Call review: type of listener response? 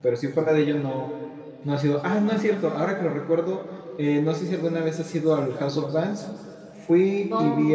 listening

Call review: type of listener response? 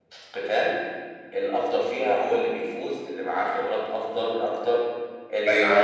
taking over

